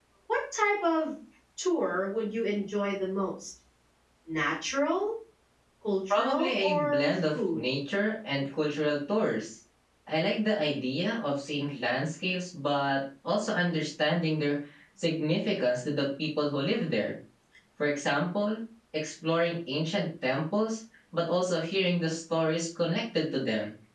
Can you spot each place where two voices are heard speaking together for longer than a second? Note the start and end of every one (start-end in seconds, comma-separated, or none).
6.1-7.6